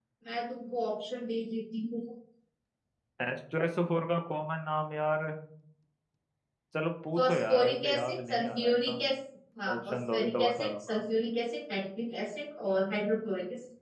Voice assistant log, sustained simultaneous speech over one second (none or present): present